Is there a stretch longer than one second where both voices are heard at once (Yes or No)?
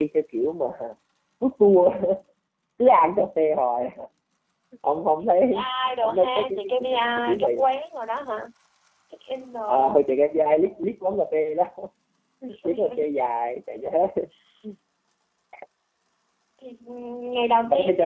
Yes